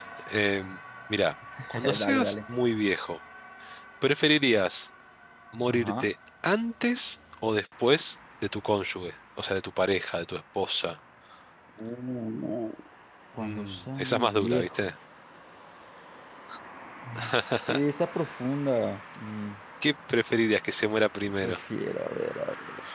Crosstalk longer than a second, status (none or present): present